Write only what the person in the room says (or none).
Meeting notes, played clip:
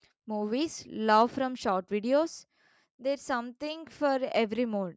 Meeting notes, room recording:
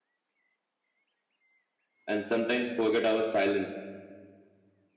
and sometimes forget our silence.